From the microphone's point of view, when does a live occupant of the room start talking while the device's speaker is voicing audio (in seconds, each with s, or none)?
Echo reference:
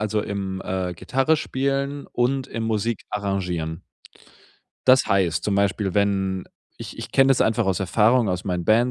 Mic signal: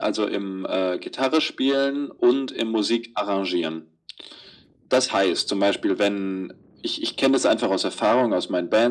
none